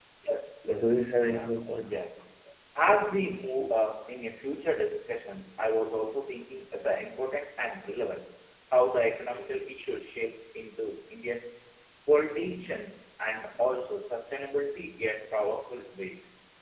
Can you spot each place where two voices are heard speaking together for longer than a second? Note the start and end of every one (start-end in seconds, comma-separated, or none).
0.7-2.1